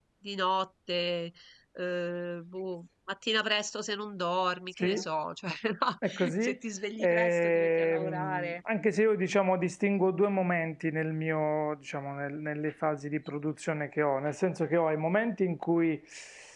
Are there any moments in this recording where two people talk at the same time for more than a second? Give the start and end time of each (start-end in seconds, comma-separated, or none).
7.0-8.5